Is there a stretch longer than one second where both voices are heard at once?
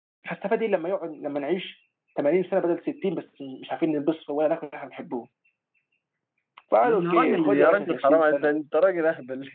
Yes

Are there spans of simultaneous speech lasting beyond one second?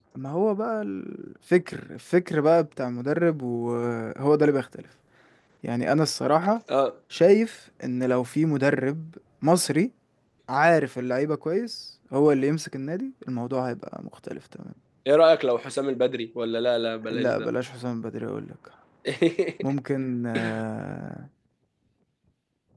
No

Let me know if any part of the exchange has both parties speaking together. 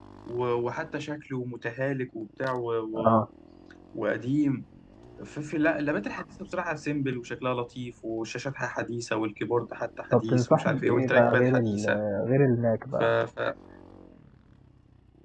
Yes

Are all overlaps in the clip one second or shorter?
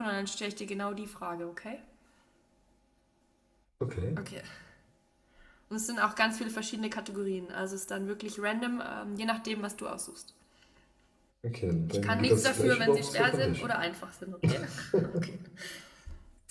No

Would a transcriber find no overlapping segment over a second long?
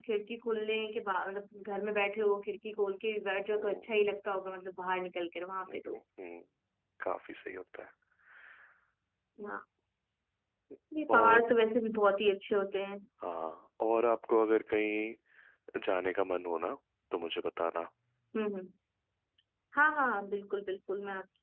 Yes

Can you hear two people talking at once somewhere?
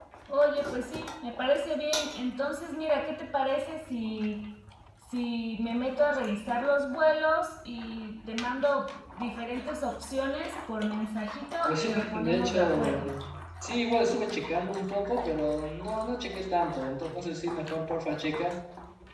Yes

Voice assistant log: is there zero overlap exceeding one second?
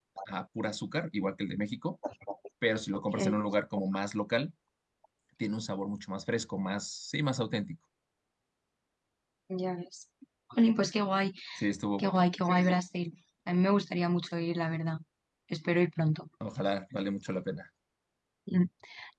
Yes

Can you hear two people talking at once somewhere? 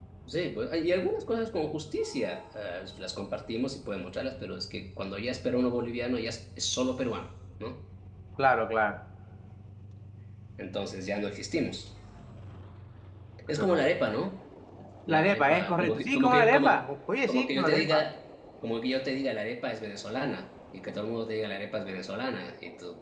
Yes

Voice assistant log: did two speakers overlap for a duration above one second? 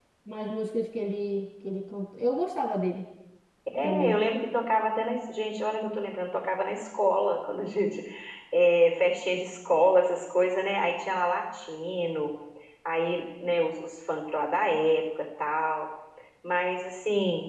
No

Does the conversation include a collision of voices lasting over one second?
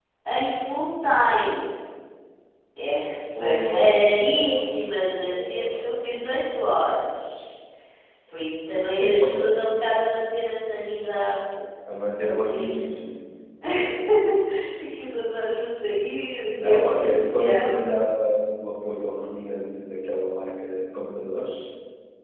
Yes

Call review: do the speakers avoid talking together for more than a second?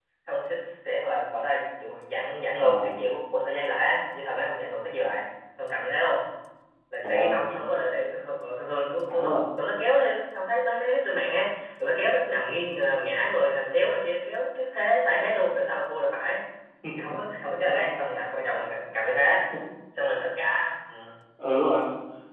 Yes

